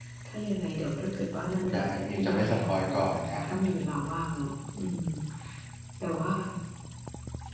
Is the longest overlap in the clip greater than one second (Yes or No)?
Yes